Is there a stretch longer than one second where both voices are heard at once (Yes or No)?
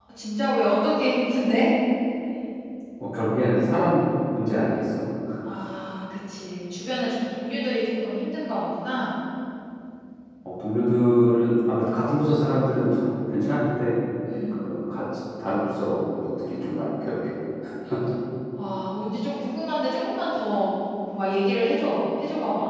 No